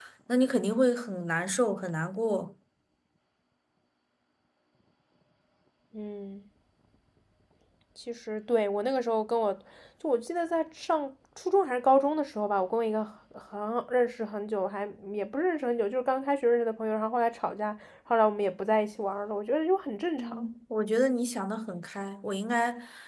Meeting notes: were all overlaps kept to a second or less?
Yes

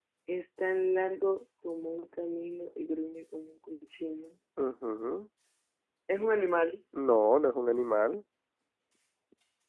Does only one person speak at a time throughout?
Yes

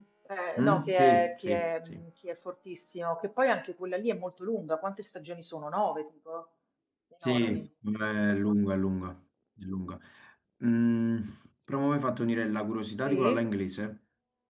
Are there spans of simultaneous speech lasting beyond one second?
Yes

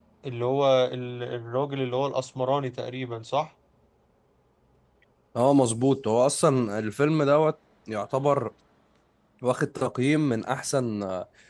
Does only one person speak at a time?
Yes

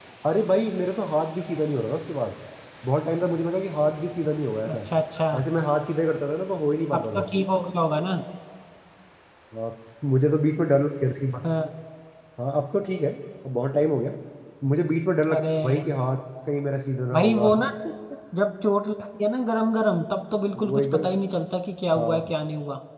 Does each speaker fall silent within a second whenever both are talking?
Yes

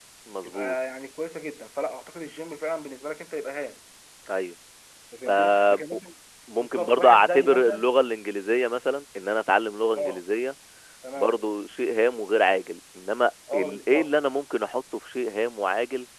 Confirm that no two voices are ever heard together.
No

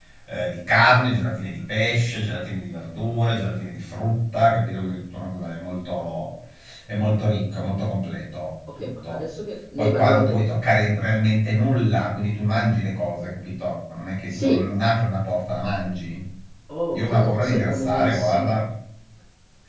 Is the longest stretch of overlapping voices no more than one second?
No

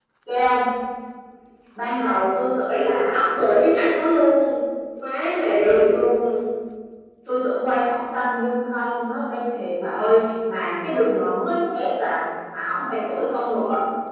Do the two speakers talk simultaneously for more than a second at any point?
No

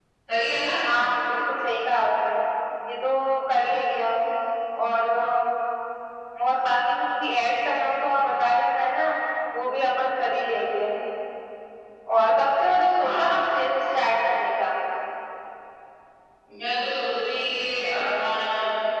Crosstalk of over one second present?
No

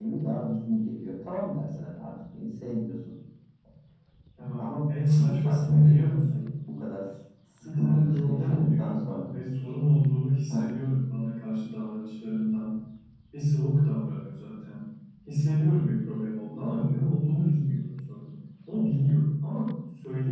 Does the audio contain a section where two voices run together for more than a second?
Yes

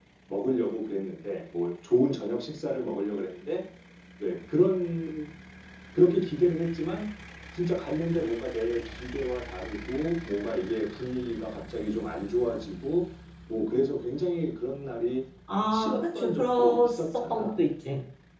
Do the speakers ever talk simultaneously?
Yes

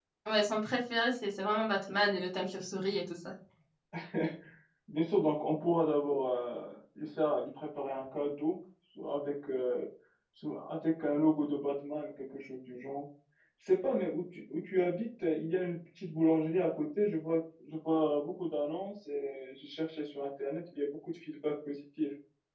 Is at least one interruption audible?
No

